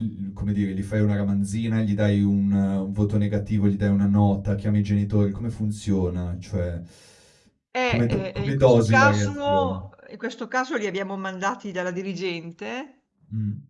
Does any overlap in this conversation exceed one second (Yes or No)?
Yes